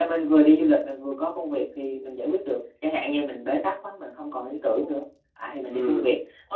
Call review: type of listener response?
taking over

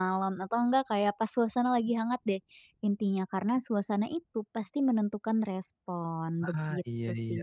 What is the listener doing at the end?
taking over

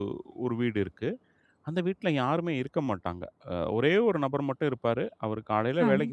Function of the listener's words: listening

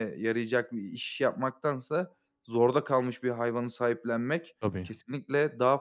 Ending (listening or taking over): listening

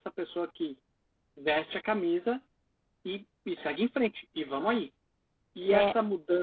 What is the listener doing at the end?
listening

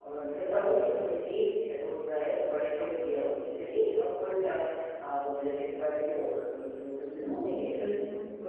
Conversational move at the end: listening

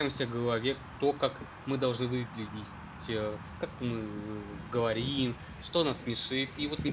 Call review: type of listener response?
listening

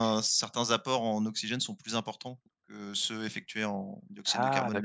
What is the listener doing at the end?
taking over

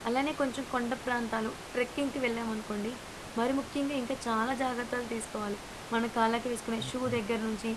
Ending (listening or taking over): listening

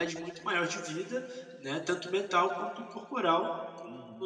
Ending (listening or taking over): taking over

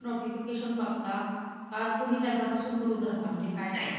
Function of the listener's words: taking over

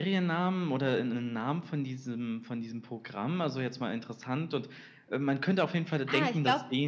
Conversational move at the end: taking over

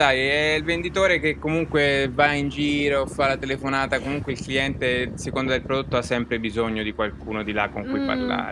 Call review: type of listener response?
taking over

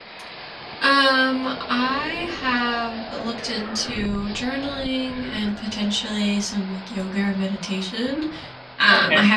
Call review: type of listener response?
listening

